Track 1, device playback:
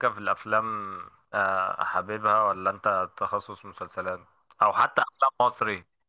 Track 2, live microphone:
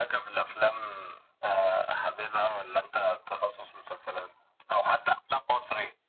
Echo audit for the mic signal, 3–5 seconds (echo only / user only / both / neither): echo only